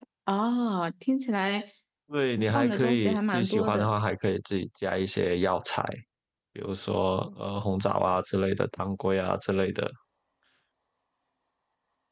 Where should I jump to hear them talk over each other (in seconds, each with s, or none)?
2.5 s